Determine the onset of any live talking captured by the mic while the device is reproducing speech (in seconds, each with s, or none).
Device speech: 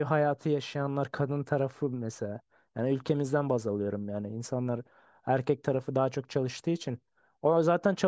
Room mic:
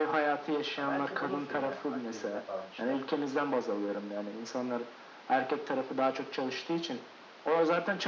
0.8 s